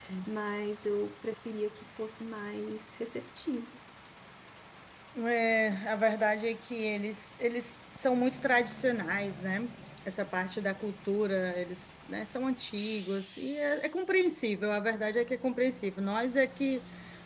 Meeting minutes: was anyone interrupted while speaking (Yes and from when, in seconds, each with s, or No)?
No